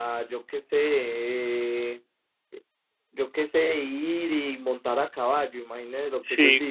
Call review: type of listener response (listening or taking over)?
taking over